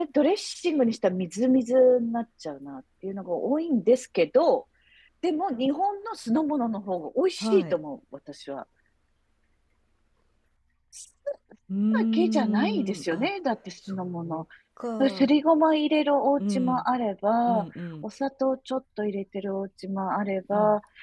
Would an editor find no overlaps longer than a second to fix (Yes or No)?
No